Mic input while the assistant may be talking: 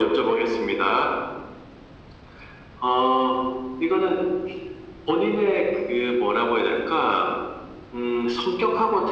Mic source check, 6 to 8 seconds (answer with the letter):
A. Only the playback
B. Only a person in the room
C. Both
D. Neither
A